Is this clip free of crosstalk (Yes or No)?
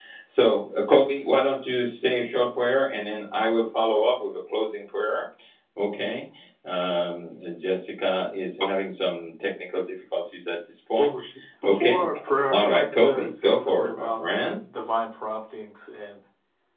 No